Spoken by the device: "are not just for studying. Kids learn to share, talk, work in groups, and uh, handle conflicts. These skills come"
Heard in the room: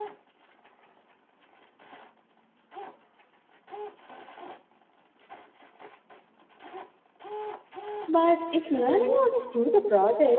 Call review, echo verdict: none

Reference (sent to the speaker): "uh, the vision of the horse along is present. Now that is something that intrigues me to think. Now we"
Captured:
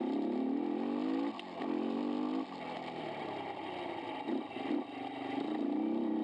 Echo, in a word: none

